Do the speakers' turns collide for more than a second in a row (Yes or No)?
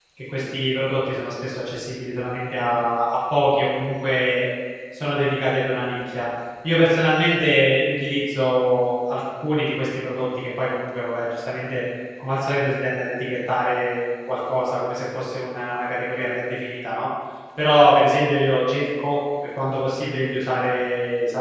No